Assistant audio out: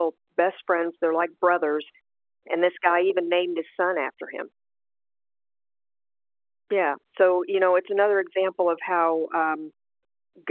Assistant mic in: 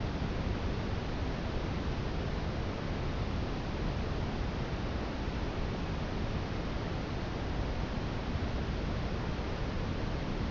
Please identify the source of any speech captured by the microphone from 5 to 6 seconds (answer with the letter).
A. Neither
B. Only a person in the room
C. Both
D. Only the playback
A